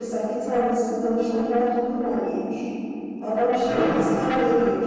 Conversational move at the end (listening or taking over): listening